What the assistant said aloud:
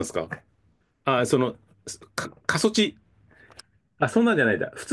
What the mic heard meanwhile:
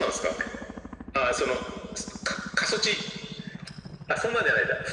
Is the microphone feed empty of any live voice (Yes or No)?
Yes